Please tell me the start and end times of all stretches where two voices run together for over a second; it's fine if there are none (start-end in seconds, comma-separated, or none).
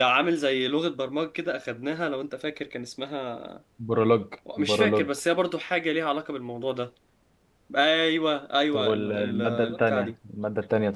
8.7-10.1